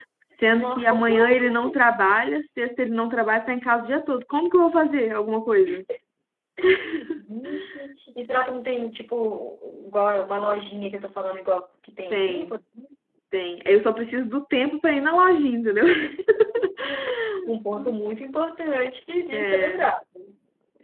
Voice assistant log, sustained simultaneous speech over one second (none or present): present